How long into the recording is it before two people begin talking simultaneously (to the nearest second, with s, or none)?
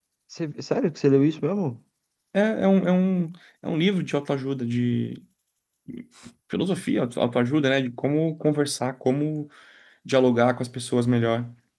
none